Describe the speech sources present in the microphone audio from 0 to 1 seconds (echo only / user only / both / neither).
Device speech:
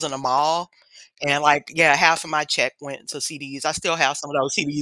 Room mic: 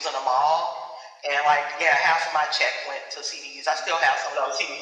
echo only